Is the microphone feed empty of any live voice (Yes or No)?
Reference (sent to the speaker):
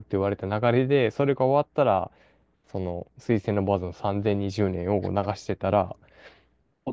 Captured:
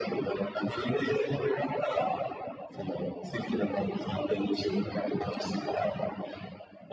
Yes